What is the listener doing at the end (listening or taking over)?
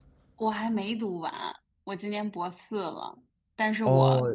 listening